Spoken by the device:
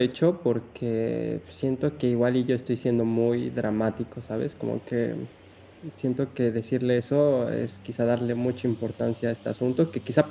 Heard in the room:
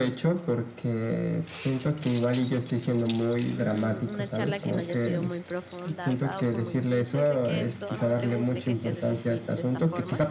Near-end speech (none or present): present